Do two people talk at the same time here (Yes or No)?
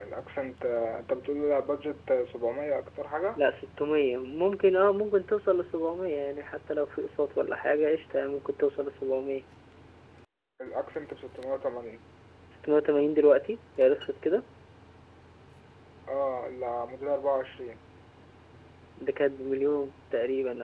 No